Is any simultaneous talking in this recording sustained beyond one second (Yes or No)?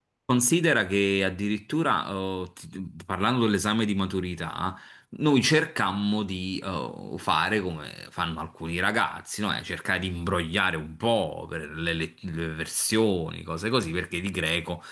No